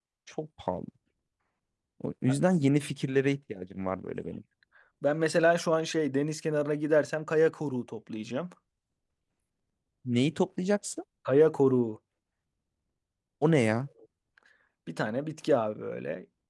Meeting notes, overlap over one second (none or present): none